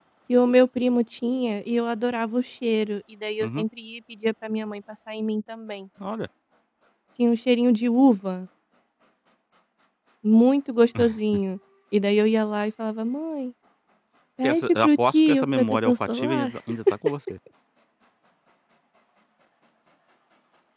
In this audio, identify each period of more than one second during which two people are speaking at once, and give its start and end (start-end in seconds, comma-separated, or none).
14.4-16.5